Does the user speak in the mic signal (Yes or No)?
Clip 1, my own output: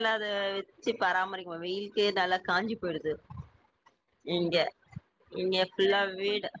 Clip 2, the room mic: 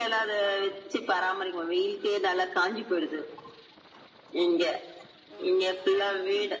No